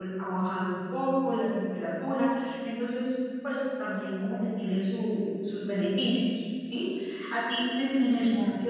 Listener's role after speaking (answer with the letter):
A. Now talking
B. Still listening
B